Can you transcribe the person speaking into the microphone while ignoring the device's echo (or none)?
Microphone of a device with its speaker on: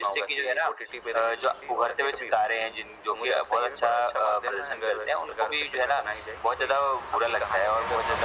none